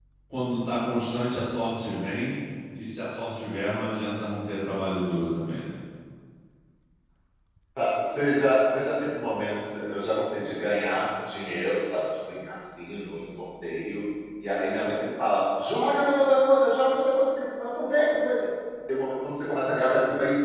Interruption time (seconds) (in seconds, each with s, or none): none